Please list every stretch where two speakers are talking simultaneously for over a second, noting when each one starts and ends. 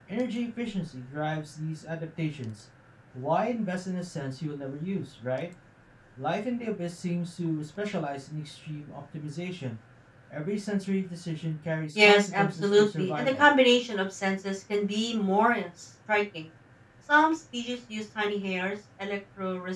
11.9-13.5

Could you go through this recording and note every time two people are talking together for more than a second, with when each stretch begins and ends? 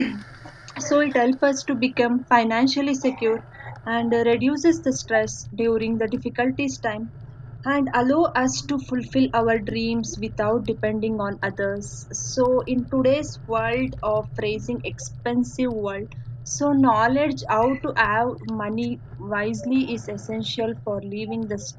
none

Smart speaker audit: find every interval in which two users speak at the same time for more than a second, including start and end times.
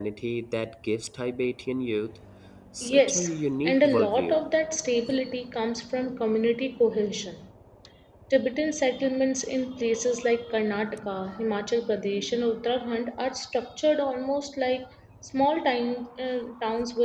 2.8-4.4

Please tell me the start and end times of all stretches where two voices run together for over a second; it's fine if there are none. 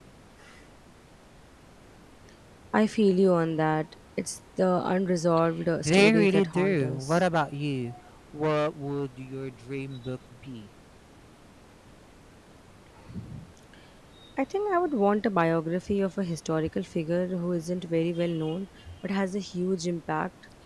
5.8-7.2

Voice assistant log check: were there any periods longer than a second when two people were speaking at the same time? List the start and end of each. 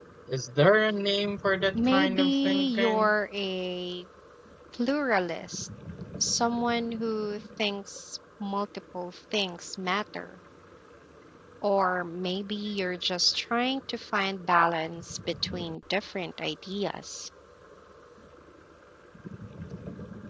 1.9-3.1

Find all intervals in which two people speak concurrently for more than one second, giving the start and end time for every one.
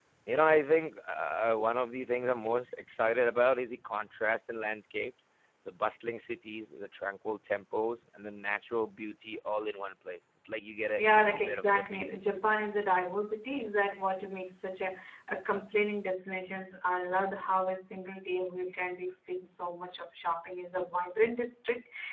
11.0-12.2

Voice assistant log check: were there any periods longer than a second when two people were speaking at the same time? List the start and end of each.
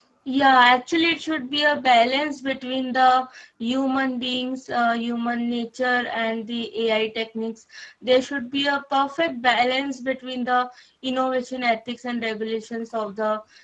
none

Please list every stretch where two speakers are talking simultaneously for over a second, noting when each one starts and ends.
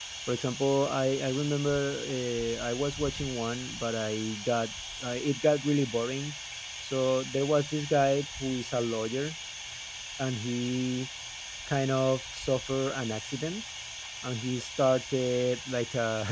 none

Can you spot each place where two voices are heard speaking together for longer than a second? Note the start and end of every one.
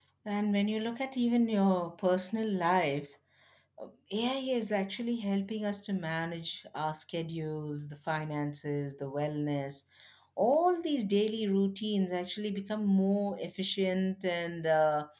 none

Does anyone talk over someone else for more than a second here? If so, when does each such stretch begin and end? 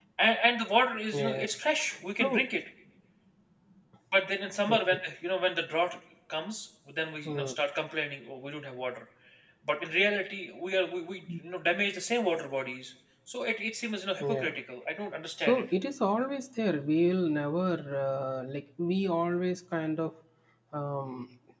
none

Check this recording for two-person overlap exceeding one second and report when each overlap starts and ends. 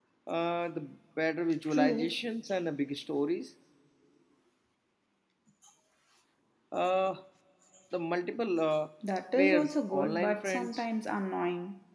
9.3-10.9

